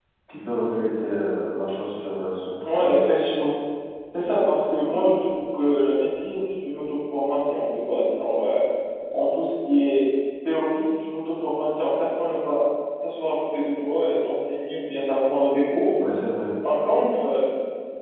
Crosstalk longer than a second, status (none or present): none